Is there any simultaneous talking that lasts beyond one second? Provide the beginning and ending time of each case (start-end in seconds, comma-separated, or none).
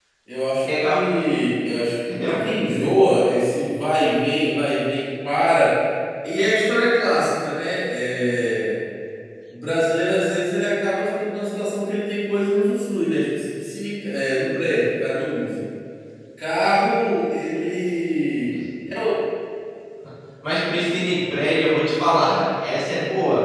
none